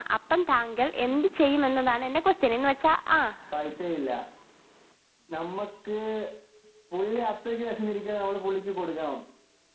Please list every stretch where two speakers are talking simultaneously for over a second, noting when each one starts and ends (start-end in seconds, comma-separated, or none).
none